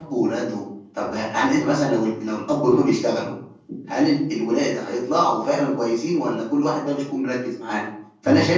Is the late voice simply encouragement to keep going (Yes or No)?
Yes